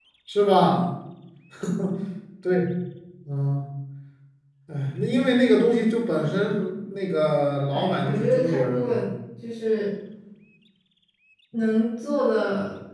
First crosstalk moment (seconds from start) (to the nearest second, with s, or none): 8 s